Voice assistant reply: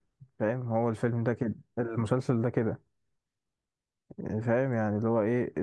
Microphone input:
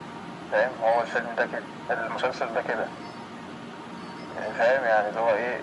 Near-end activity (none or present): none